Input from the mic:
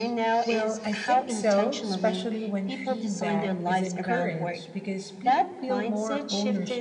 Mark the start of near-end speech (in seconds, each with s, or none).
0.4 s